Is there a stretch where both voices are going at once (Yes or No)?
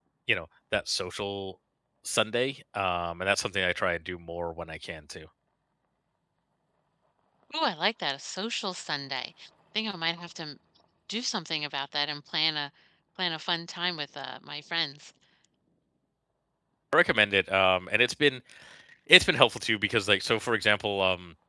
No